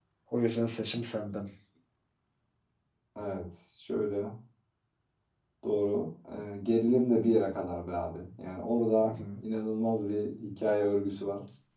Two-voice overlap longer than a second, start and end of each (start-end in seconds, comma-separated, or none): none